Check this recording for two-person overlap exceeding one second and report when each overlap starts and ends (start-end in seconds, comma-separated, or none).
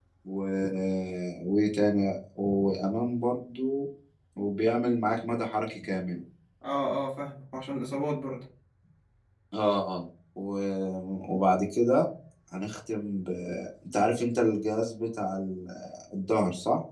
none